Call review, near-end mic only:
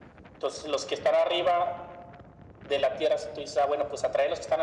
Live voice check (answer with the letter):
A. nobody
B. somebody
A